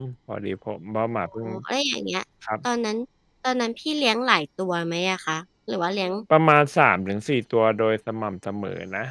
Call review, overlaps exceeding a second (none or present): none